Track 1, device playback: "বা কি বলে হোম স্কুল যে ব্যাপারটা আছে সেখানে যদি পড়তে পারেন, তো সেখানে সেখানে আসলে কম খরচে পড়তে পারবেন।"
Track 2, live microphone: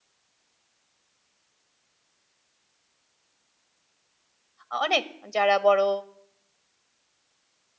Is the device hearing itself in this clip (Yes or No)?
No